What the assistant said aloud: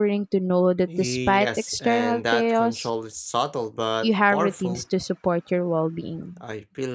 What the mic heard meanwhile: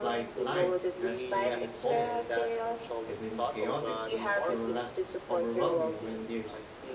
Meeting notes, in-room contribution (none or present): present